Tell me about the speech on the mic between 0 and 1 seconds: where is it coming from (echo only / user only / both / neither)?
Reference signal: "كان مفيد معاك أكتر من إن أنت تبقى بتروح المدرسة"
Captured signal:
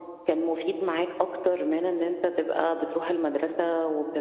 echo only